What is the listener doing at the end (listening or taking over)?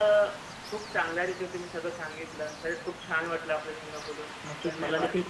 taking over